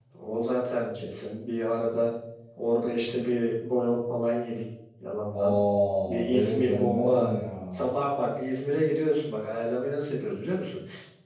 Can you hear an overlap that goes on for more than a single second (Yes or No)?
Yes